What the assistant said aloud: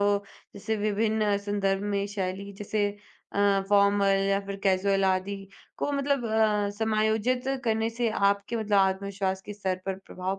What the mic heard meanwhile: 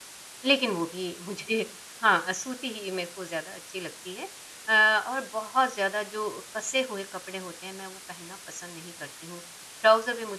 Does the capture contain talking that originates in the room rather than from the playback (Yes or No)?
Yes